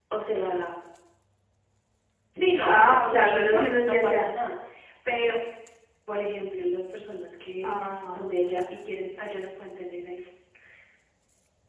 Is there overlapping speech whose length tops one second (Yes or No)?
Yes